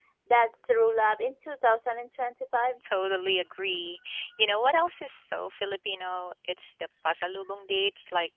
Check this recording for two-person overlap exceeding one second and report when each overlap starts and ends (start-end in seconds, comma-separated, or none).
none